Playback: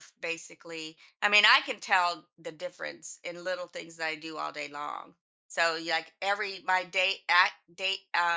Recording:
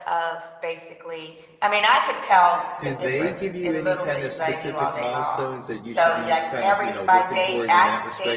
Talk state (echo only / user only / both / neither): both